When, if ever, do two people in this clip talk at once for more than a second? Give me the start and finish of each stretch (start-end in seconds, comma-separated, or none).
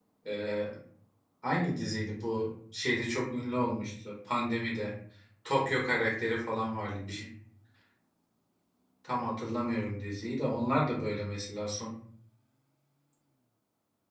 none